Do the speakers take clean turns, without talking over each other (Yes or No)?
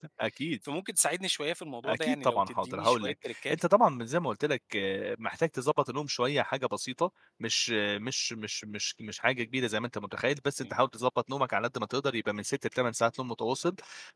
No